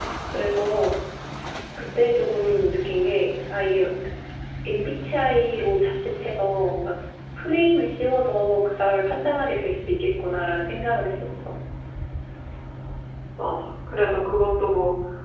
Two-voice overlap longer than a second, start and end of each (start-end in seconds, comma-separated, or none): none